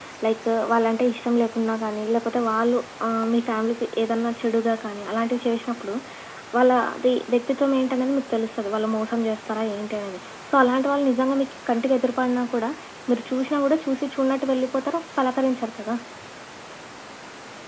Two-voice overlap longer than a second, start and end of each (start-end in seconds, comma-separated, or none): none